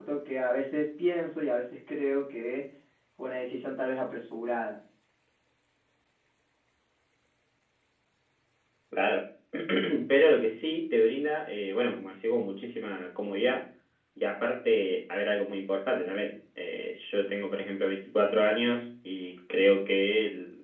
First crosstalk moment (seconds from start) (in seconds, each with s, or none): none